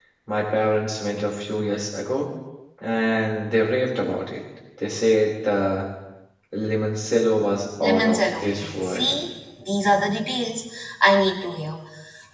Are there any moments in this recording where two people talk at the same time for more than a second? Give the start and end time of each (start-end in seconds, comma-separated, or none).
7.8-9.1